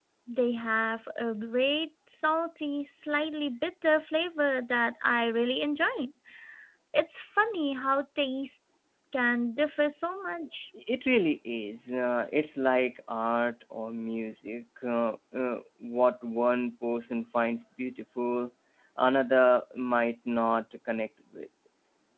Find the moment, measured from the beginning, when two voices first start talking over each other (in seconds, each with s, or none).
none